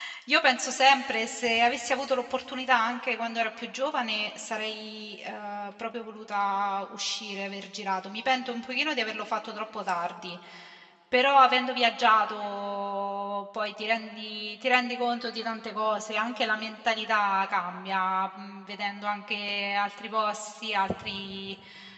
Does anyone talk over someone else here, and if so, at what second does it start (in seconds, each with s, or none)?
none